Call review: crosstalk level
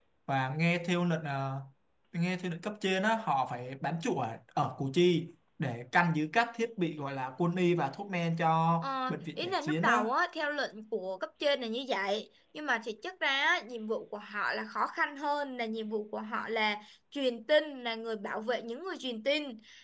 present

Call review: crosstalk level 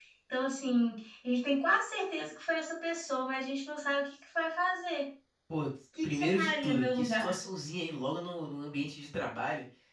present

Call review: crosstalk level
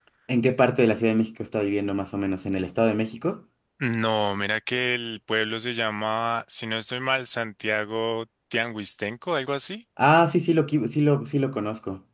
none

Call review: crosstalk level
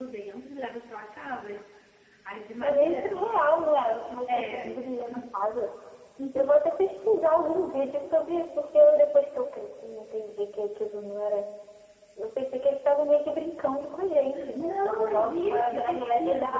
present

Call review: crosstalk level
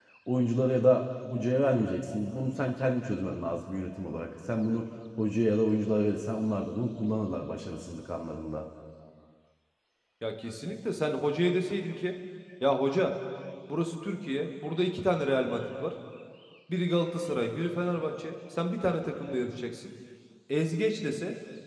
none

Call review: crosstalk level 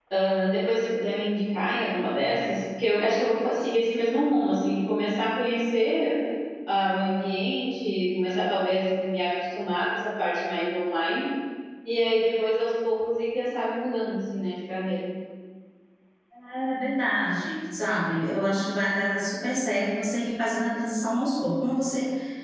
none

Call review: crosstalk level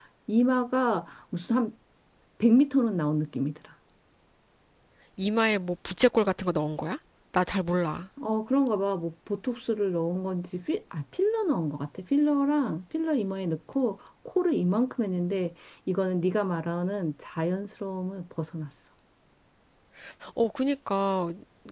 none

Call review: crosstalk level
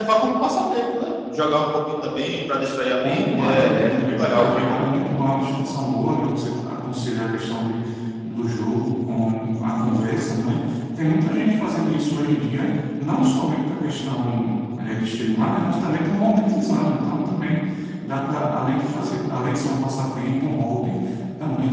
present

